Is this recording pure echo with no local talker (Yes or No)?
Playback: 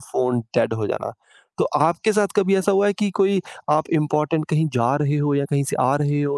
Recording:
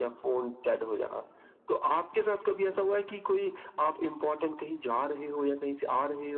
Yes